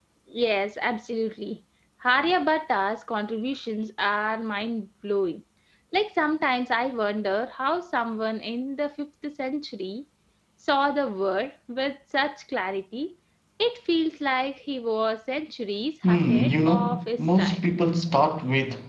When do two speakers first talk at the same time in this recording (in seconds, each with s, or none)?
16.0 s